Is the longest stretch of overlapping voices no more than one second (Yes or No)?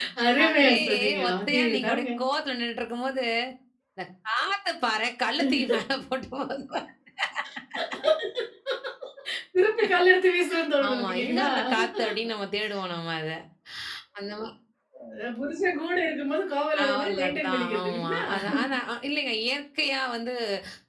No